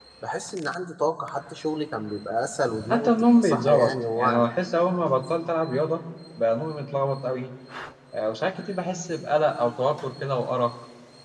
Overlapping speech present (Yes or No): Yes